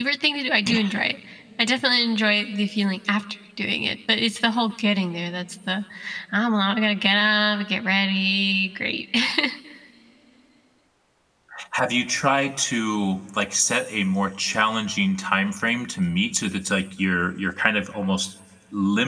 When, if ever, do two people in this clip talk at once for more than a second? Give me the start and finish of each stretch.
none

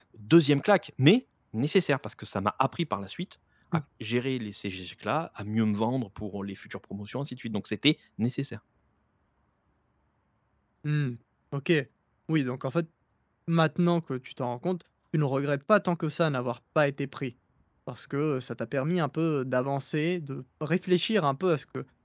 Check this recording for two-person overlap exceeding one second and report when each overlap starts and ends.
none

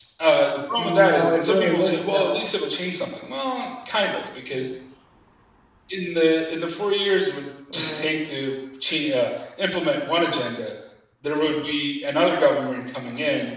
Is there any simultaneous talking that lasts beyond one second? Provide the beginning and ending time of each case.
0.8-2.4

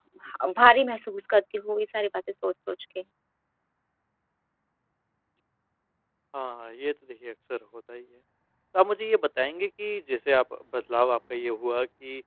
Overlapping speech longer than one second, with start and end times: none

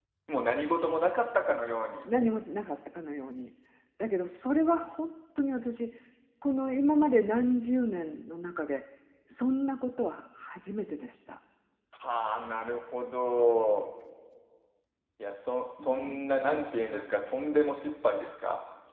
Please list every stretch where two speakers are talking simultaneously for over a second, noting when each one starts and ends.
15.8-17.1

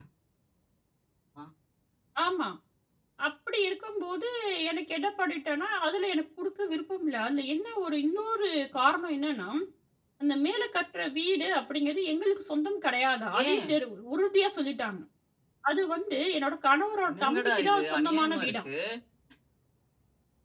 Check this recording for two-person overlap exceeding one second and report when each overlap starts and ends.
17.1-18.7

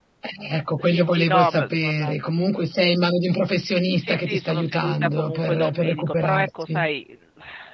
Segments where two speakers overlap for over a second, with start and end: 0.8-2.1, 4.0-6.9

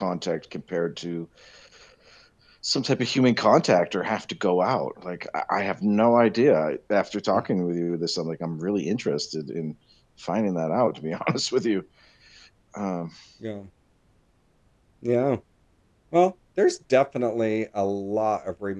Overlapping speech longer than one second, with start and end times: none

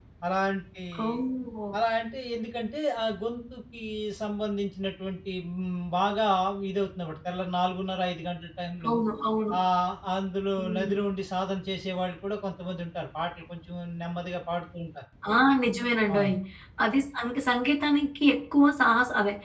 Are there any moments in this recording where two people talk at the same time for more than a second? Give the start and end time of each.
none

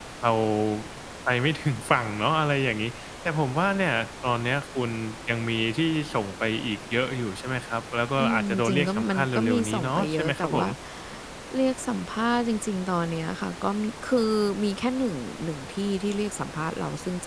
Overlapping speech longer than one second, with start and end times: 8.2-10.7

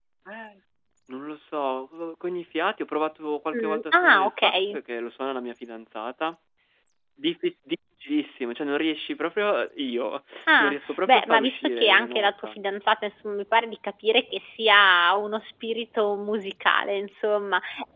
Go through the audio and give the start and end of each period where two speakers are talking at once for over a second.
3.5-4.8, 10.6-12.5

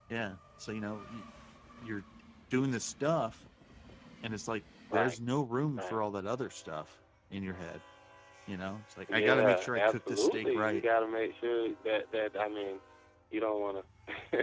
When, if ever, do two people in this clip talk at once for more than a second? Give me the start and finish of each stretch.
9.1-10.8

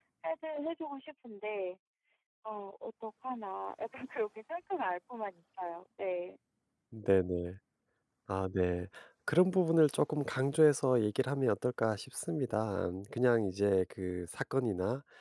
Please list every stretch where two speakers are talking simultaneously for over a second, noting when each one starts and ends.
none

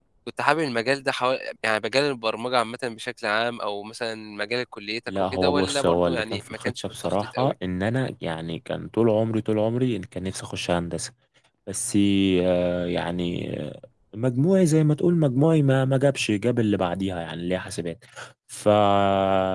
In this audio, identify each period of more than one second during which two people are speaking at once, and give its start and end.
5.1-7.5

